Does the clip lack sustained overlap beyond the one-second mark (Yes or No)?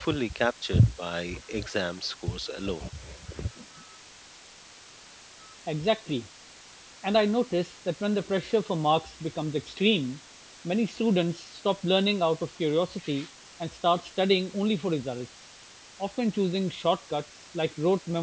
Yes